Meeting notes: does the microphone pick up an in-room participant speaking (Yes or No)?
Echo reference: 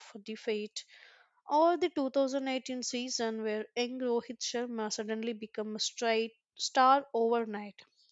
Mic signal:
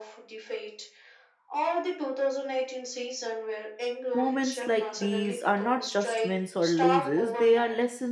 Yes